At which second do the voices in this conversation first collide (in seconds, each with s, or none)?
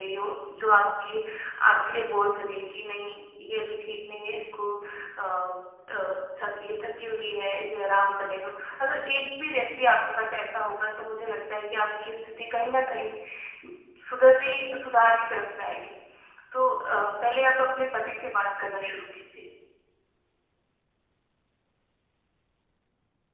none